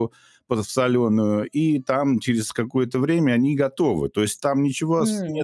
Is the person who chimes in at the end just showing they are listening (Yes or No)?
Yes